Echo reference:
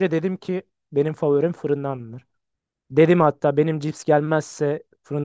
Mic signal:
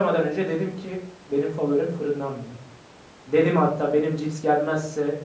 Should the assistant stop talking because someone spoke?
No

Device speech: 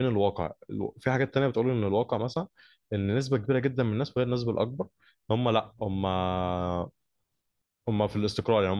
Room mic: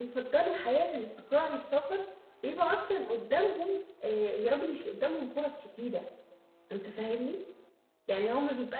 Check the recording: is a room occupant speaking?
Yes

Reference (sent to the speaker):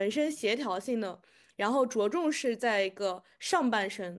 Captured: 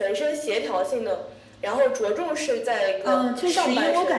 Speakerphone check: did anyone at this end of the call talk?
Yes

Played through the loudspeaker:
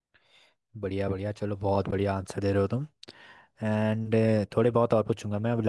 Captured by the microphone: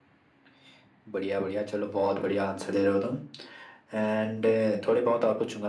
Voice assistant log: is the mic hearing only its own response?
Yes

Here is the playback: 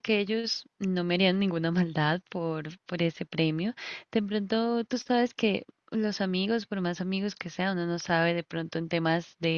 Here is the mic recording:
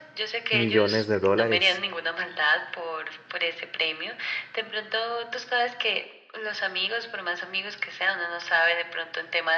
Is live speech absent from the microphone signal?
No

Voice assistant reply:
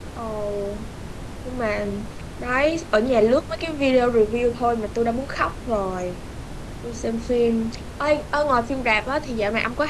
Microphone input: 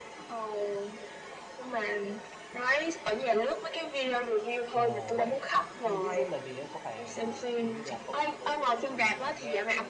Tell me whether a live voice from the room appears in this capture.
Yes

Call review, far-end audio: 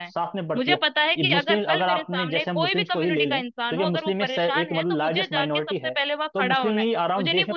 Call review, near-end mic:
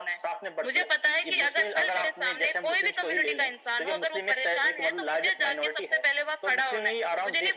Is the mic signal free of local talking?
Yes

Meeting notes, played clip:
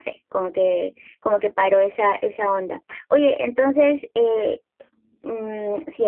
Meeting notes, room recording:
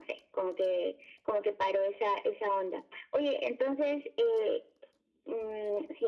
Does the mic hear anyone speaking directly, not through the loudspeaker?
No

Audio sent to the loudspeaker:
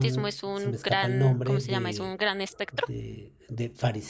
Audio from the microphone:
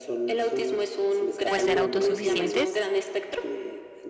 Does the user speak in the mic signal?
Yes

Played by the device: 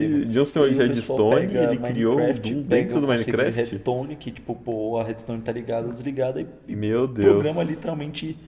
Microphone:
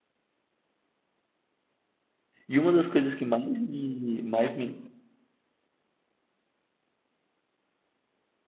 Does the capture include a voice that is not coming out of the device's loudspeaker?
Yes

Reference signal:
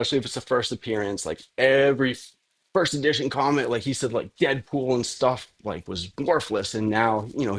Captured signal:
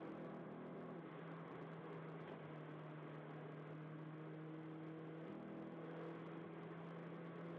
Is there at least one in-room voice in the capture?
No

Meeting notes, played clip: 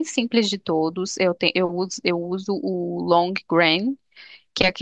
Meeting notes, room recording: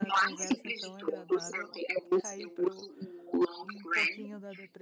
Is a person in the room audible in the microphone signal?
Yes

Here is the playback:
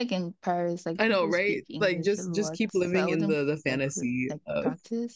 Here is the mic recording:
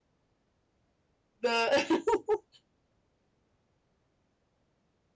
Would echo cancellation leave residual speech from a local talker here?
Yes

